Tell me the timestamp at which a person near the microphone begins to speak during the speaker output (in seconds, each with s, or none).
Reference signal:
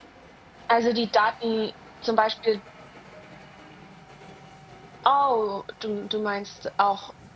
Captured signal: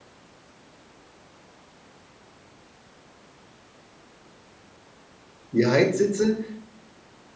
5.5 s